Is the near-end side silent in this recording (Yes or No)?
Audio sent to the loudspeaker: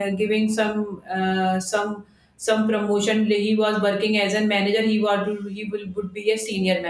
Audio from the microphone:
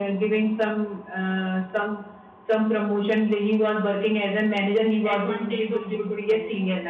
No